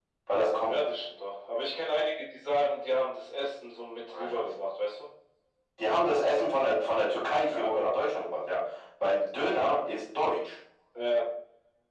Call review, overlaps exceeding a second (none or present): none